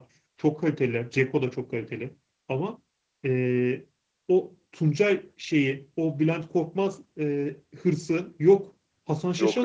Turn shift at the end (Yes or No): No